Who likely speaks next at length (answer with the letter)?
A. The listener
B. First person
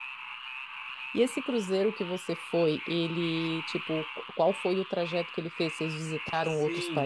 A